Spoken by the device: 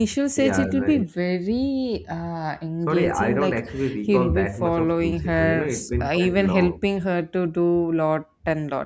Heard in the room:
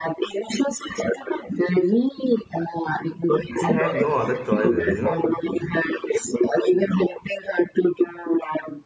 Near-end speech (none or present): present